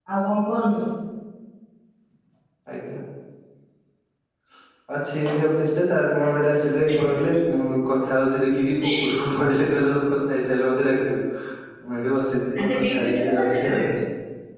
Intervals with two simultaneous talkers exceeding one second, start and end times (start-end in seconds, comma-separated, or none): 12.6-13.8